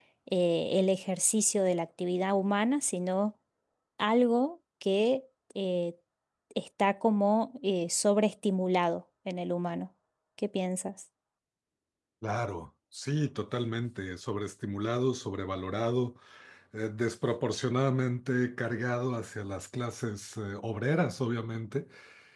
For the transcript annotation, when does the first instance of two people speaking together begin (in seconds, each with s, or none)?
none